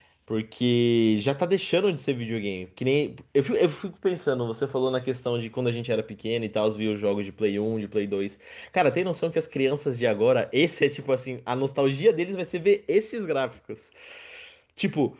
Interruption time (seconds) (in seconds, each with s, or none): none